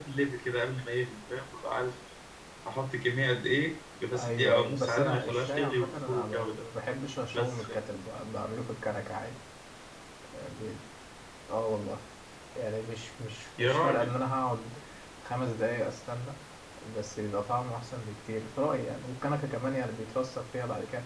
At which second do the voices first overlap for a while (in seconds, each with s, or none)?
4.1 s